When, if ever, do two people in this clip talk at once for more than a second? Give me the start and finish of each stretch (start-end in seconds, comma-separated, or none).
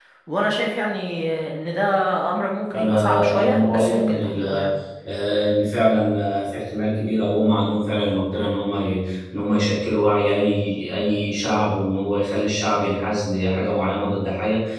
2.7-4.4